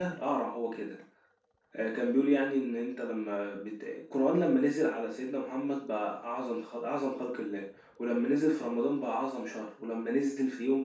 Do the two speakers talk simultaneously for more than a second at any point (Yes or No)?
No